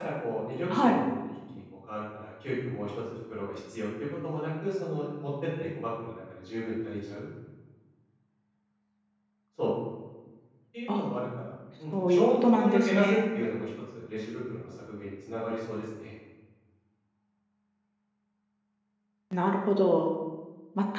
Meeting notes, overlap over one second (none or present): present